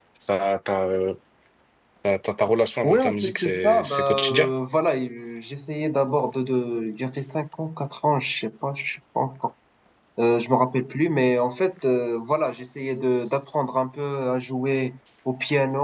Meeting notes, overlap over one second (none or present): present